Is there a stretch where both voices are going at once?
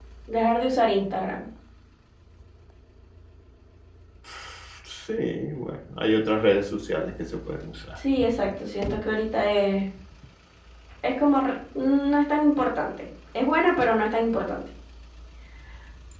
No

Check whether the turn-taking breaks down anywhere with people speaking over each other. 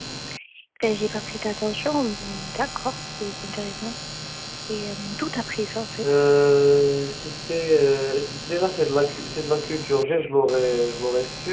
No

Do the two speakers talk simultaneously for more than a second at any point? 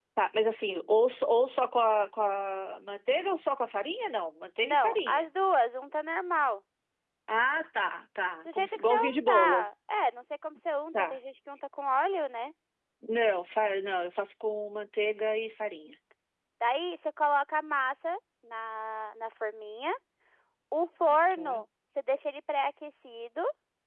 Yes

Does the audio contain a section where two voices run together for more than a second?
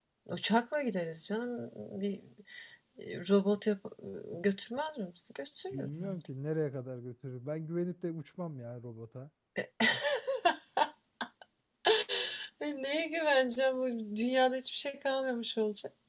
No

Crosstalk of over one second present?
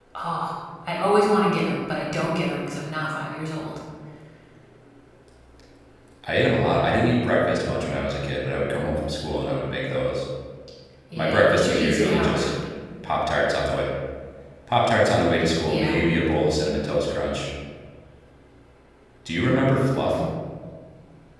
Yes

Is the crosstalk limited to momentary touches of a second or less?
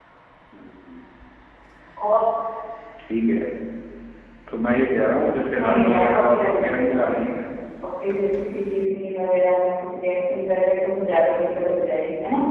No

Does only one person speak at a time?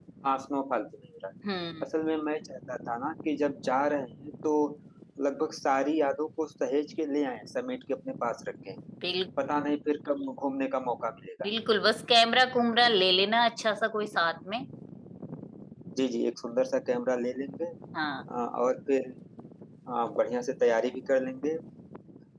Yes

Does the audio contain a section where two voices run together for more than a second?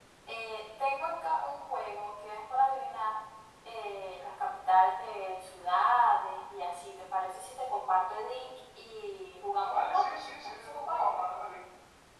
Yes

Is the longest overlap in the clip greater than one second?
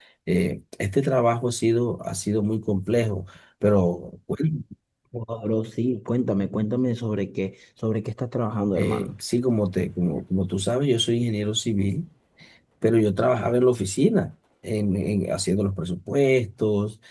No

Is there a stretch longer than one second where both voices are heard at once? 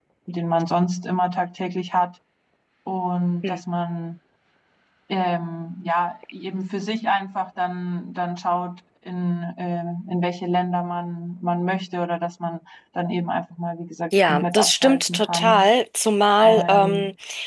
Yes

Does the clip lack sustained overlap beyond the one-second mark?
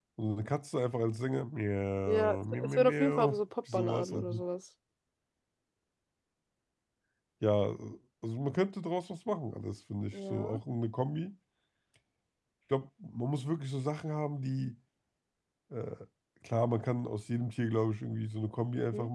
No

